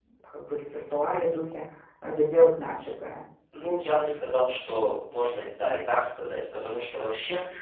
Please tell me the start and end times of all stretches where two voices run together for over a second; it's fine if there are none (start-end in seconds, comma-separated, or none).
none